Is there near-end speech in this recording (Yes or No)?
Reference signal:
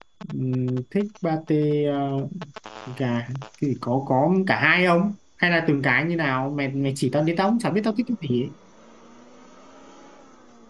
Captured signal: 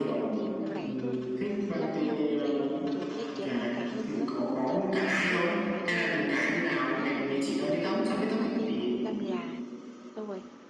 Yes